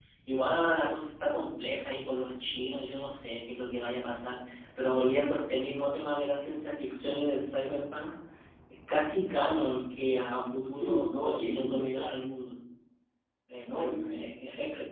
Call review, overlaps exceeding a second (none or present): present